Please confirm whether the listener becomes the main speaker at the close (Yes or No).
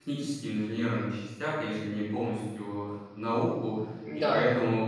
No